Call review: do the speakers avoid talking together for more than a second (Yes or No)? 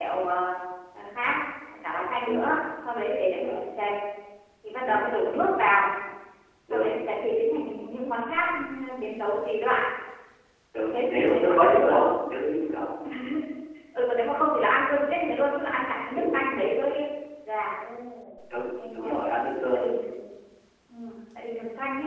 No